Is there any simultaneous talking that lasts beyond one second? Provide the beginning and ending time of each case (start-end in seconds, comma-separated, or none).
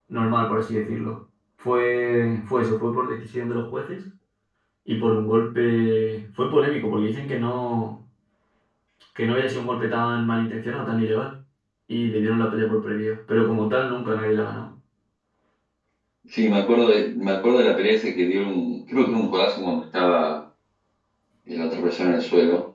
none